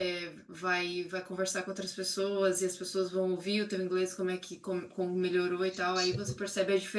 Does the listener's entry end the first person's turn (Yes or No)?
No